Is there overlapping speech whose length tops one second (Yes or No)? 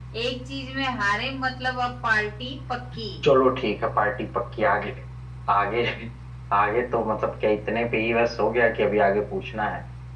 No